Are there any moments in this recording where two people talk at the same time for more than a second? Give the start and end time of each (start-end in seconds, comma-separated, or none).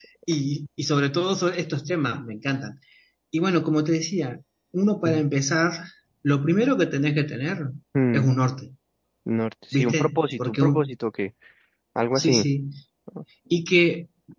9.7-10.9